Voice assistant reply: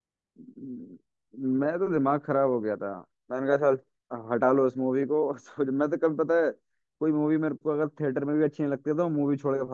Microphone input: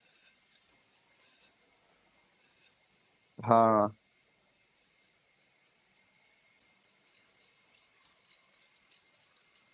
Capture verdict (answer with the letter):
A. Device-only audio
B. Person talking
B